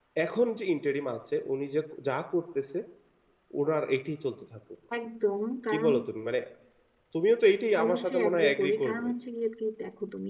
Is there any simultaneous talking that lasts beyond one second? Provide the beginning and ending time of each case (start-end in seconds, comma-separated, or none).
7.8-9.1